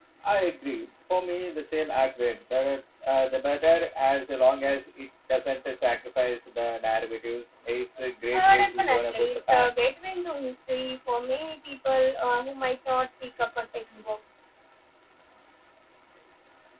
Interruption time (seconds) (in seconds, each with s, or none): 8.3 s